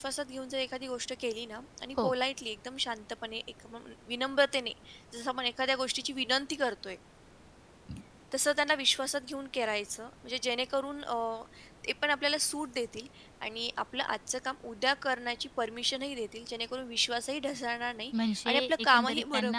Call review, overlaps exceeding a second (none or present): present